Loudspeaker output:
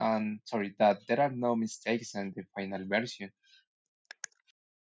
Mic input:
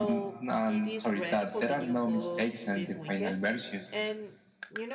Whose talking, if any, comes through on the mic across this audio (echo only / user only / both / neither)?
both